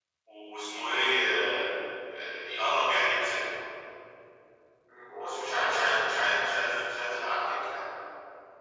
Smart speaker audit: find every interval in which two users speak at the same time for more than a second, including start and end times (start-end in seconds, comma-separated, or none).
5.2-6.5